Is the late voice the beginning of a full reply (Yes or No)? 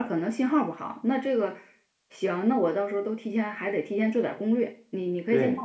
No